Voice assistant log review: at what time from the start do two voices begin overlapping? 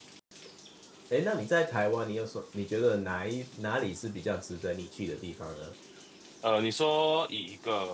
none

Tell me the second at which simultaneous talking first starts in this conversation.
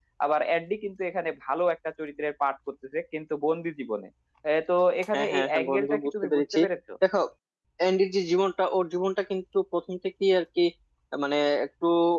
5.1 s

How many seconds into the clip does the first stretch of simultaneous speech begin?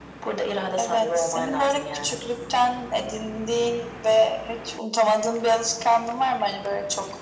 0.8 s

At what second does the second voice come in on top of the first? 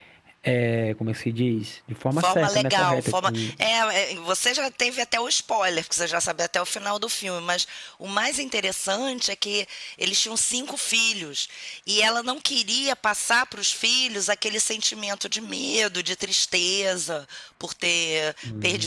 2.2 s

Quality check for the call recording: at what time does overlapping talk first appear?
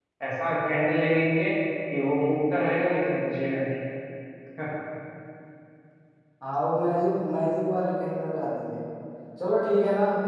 none

